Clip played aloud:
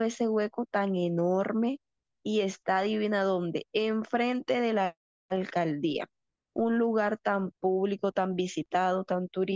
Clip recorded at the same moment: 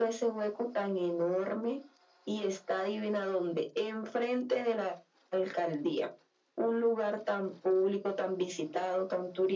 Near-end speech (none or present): none